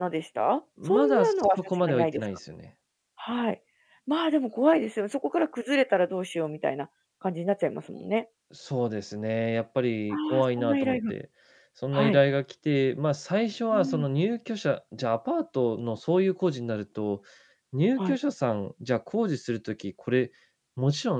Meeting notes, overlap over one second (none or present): present